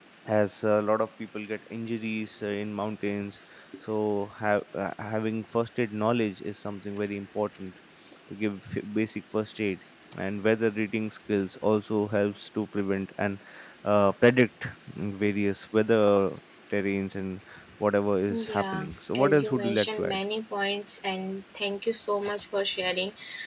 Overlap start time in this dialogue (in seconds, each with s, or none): 18.3 s